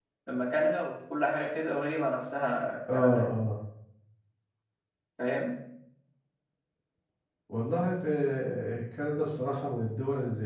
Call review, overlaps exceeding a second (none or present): none